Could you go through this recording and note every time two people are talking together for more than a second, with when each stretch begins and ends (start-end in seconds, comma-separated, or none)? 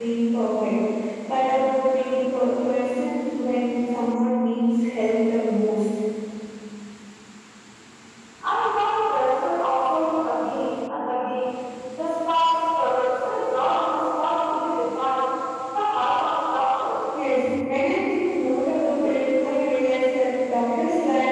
none